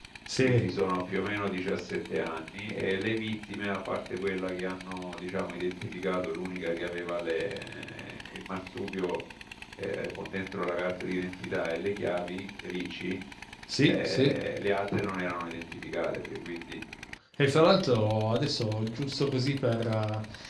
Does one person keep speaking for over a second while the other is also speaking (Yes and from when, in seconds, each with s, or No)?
No